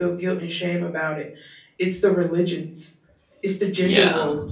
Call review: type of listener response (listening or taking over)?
listening